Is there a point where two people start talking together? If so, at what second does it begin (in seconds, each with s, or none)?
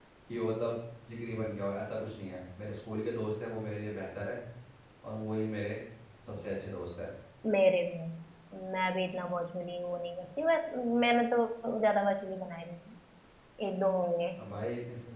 none